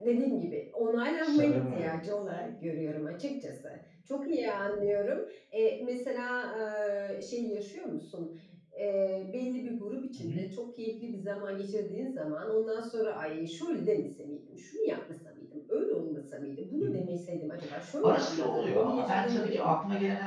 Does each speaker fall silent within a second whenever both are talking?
No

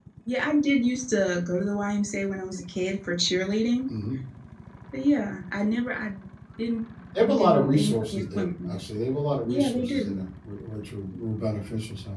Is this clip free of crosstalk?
No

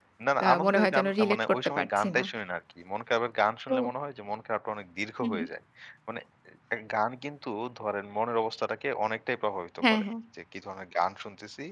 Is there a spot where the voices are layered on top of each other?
Yes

